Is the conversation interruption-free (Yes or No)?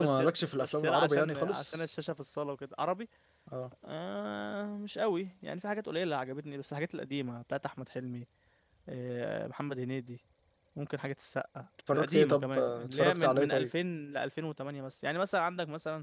No